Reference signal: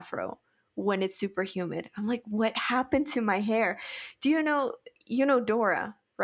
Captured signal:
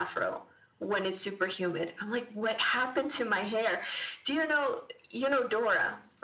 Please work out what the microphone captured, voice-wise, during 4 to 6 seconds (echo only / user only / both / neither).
echo only